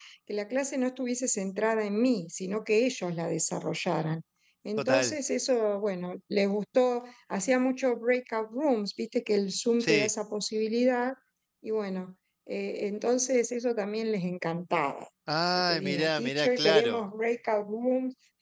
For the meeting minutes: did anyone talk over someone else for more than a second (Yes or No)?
Yes